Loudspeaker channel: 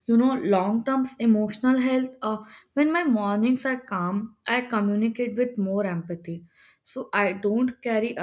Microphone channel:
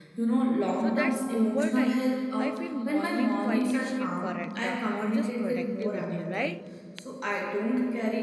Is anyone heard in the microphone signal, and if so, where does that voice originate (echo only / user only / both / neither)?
both